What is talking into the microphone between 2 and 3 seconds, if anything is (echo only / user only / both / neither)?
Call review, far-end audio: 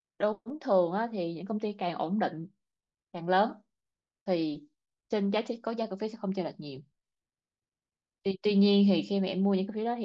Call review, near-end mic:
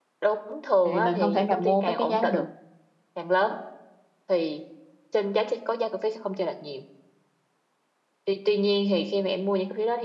both